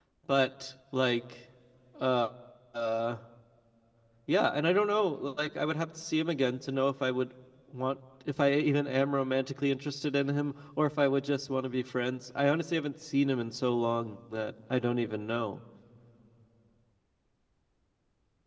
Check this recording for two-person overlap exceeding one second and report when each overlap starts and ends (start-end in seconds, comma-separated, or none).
none